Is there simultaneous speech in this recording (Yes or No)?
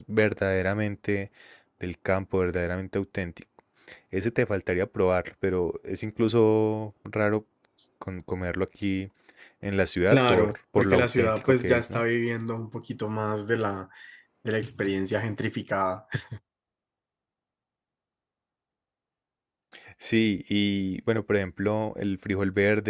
Yes